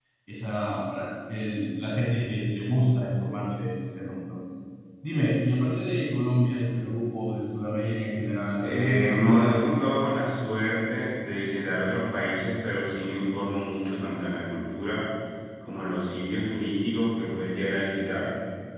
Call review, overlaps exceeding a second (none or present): present